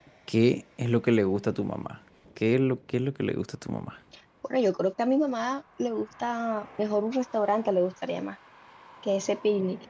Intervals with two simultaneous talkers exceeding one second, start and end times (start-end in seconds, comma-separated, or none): none